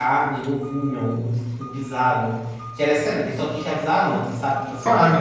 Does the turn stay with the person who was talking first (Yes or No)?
Yes